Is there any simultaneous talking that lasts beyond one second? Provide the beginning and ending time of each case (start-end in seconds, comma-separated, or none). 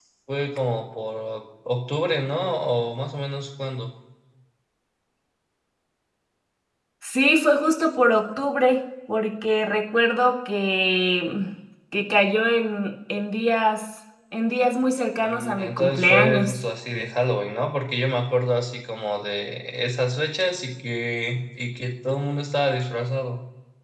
15.2-16.6